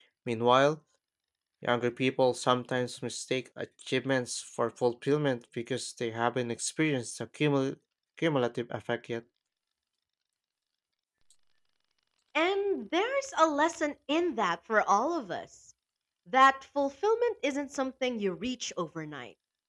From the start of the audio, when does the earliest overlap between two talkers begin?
none

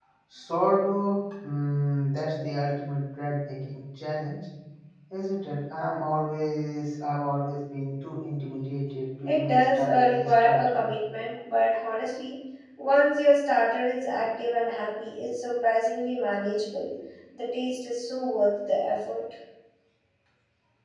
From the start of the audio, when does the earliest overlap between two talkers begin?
9 s

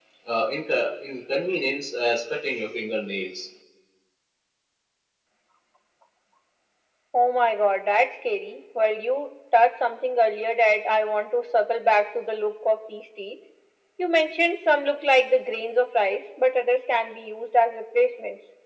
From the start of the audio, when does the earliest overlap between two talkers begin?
none

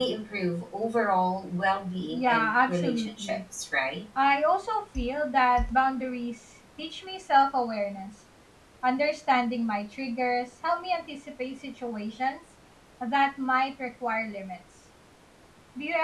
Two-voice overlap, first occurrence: 2 s

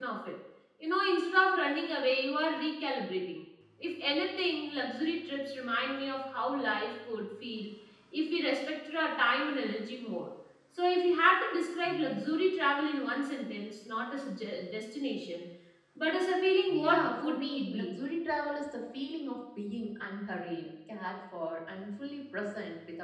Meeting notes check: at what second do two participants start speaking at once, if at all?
17 s

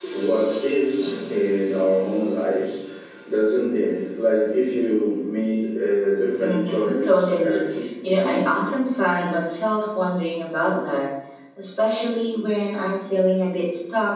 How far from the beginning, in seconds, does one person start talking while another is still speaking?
6 s

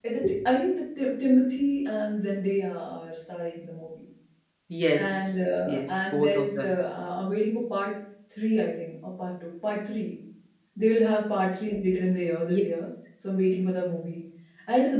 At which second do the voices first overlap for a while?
5 s

